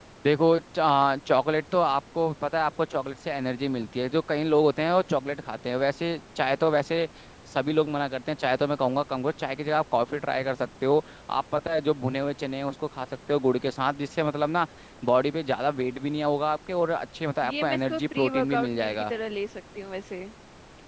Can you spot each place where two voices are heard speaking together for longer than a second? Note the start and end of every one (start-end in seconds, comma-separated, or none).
17.4-19.1